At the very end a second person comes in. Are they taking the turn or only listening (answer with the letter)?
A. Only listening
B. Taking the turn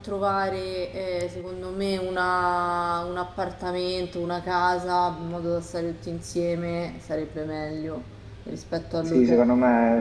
B